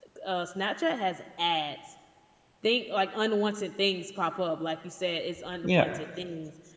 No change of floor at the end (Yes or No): Yes